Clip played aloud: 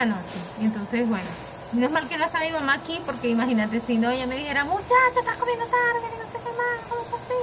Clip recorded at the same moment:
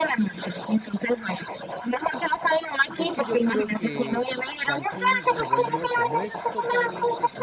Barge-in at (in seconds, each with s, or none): 3.0 s